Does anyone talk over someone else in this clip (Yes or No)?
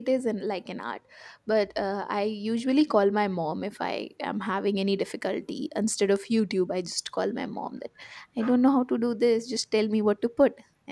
No